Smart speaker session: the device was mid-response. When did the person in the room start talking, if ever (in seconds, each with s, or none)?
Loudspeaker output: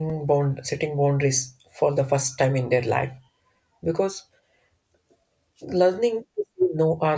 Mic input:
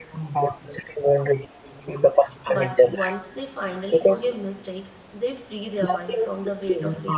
2.5 s